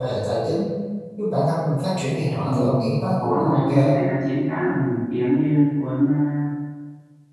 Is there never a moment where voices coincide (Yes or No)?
No